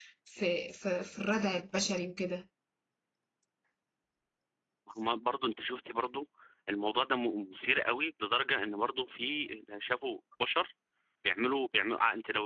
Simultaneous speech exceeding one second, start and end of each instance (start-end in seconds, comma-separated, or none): none